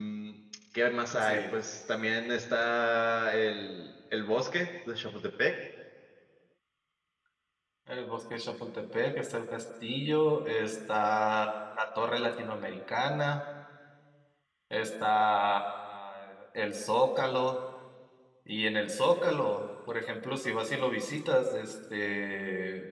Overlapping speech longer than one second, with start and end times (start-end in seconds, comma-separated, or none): none